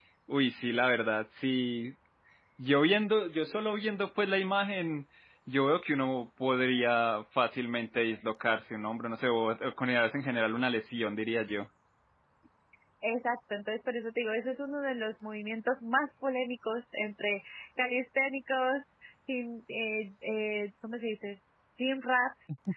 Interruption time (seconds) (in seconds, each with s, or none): none